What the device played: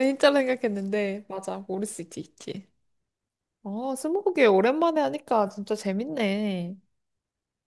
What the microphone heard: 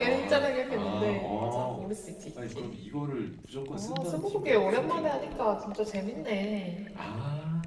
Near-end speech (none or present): present